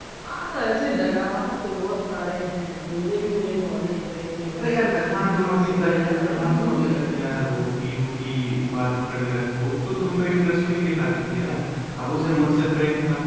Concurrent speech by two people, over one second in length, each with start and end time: 4.6-7.0

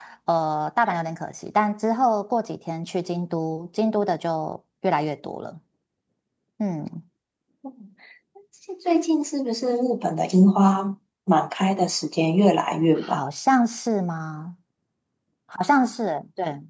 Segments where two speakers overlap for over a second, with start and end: none

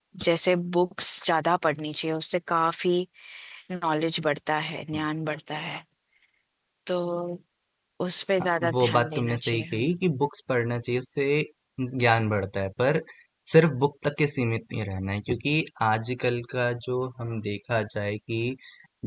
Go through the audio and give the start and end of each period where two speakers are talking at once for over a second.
8.6-9.9

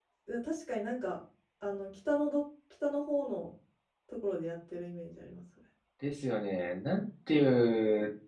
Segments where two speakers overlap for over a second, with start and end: none

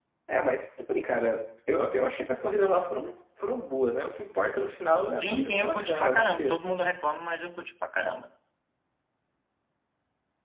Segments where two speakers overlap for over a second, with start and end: 5.2-6.6

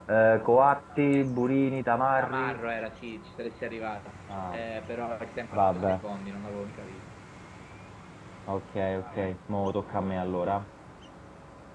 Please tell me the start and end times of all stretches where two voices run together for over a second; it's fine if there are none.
none

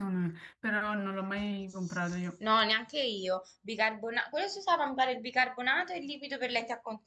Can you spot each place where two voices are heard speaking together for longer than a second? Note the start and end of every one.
none

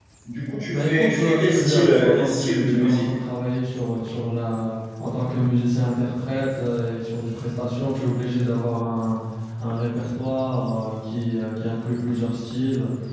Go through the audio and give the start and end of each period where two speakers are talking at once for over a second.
0.7-3.0

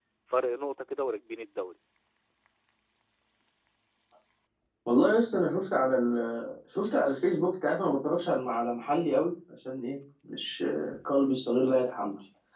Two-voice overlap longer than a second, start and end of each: none

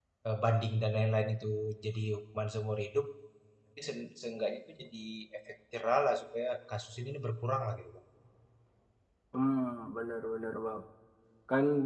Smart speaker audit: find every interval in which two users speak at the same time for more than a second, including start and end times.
none

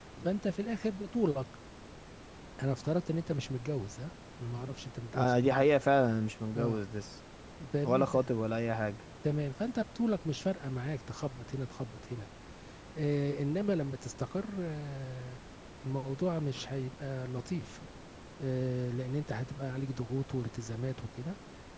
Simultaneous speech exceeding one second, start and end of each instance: none

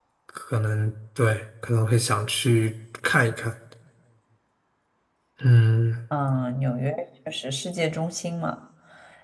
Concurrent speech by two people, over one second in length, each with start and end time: none

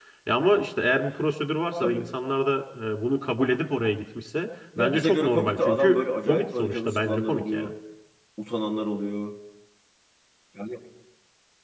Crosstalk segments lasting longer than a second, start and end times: 4.8-7.7

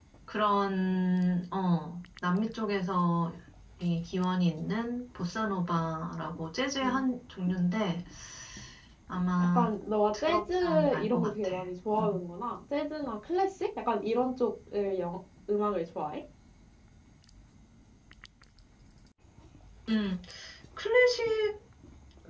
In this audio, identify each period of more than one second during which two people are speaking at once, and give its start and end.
10.1-11.5

